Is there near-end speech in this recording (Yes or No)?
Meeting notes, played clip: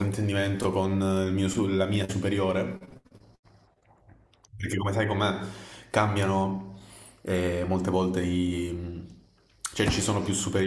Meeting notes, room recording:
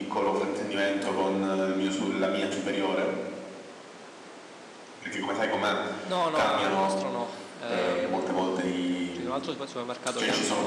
Yes